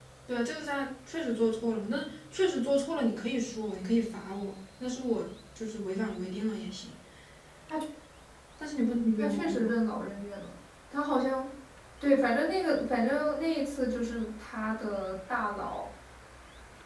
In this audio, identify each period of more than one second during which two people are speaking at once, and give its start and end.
none

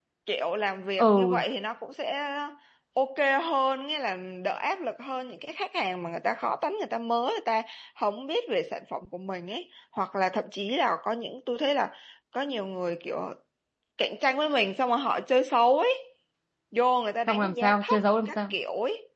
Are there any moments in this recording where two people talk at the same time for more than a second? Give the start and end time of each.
17.3-18.5

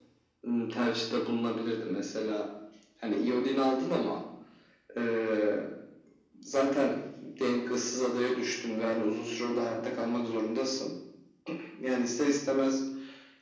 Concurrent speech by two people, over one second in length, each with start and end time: none

